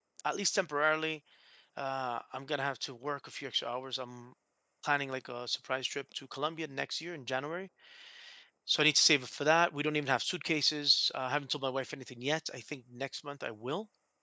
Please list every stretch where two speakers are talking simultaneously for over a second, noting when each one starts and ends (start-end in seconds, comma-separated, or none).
none